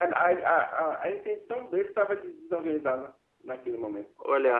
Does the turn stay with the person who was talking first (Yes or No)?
No